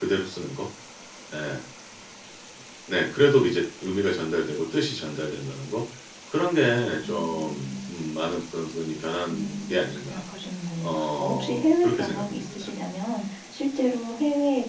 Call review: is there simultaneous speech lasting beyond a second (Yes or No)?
Yes